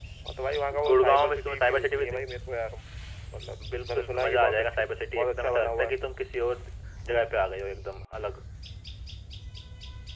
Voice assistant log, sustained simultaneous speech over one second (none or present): present